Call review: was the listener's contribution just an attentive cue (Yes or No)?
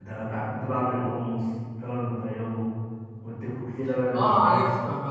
No